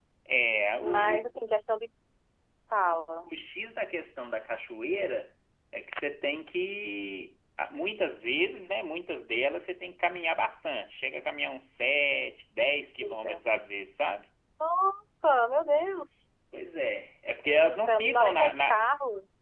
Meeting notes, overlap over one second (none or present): present